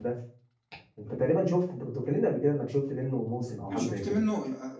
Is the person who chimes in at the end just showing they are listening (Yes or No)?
No